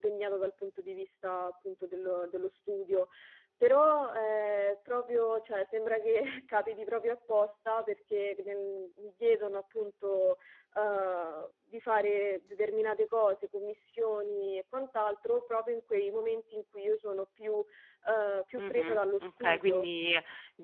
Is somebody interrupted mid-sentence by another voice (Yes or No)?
Yes